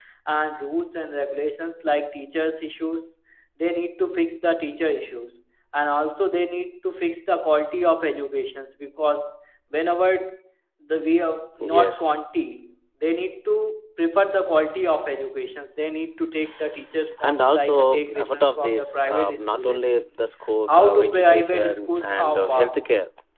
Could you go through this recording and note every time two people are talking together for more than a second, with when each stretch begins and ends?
17.2-19.9, 20.7-22.8

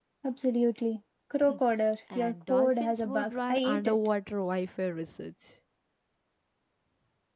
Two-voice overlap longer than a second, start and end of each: 2.2-4.0

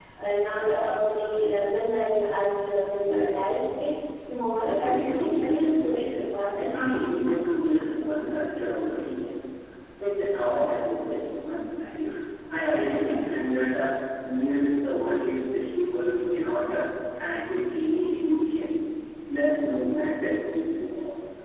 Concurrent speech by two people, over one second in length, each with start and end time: 4.6-6.1

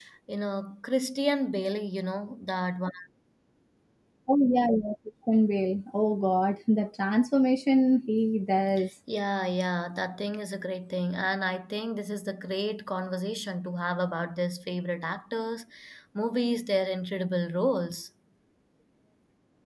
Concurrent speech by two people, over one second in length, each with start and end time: none

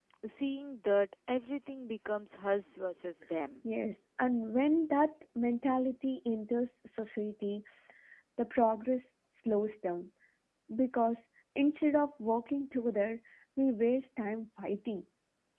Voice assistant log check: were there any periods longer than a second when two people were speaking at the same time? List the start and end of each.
none

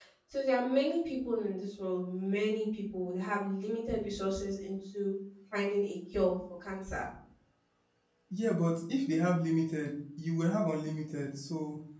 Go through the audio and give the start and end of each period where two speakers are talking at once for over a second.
none

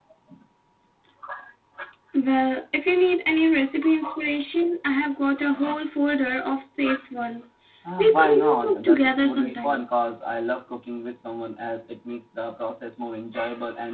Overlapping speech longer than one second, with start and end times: 8.0-9.8

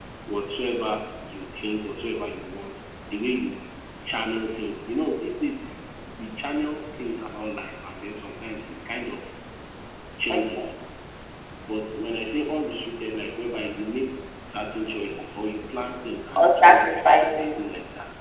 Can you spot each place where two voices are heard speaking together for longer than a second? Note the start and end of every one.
16.4-17.6

